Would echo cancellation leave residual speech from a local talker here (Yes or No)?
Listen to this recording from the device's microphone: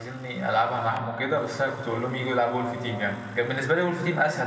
Yes